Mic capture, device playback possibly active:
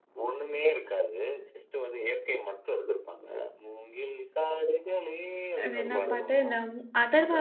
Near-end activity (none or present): present